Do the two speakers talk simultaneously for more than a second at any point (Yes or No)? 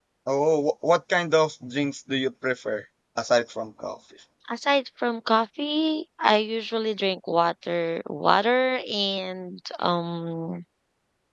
No